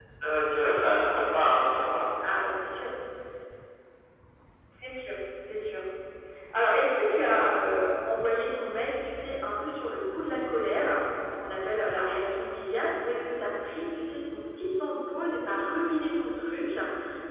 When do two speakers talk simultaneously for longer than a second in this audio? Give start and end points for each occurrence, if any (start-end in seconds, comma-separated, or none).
none